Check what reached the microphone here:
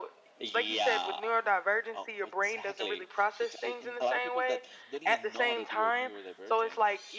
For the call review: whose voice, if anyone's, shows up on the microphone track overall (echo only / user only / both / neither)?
both